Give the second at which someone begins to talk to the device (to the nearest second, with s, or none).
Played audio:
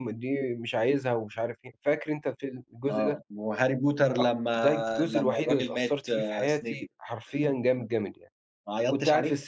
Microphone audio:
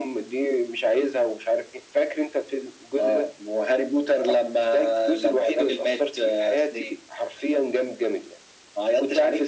none